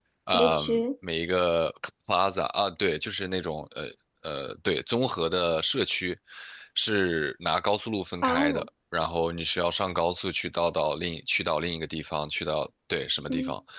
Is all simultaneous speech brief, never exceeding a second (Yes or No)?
Yes